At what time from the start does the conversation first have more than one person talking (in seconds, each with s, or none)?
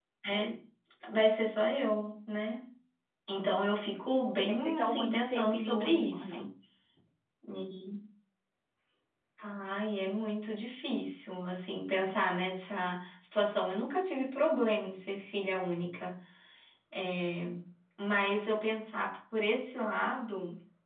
4.5 s